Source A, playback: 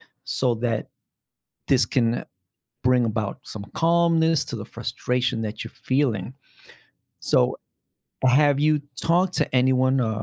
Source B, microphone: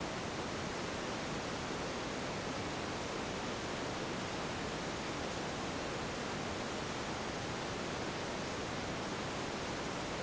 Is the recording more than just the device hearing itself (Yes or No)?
No